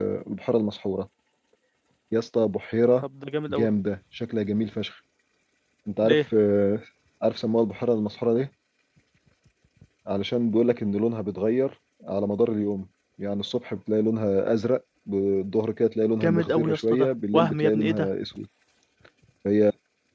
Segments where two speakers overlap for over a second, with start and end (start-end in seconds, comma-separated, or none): 16.2-18.1